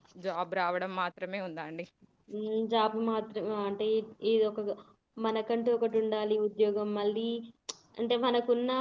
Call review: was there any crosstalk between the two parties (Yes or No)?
No